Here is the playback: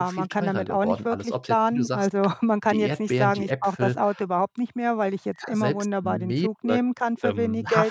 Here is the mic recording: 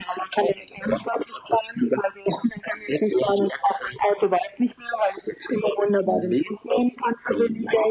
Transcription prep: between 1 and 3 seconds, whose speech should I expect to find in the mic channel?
echo only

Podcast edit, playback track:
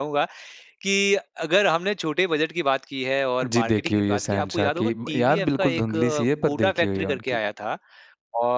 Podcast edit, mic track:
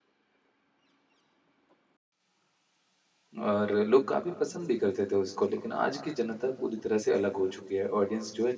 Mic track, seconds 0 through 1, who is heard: neither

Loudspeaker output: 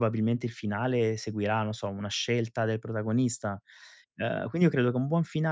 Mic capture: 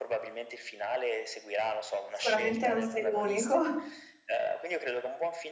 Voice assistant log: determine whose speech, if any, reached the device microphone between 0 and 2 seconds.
echo only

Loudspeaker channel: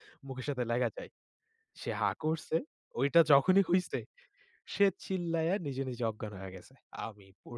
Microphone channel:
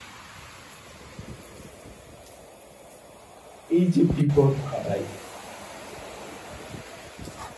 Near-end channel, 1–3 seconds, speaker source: neither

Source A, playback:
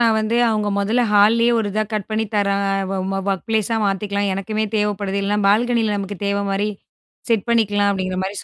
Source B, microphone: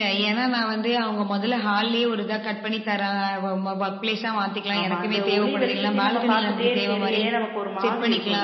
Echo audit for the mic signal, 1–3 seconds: echo only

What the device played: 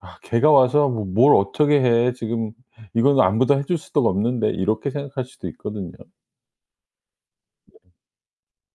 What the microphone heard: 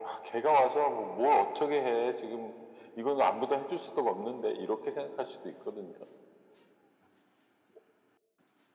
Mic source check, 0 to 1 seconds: echo only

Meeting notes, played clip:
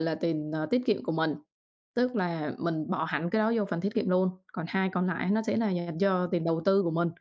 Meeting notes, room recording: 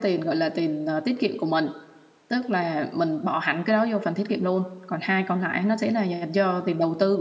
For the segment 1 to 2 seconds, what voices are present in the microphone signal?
echo only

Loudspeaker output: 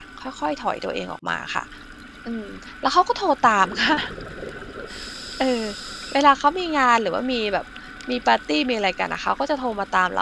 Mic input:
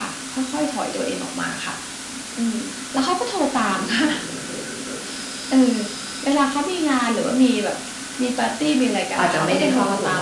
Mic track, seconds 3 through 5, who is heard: echo only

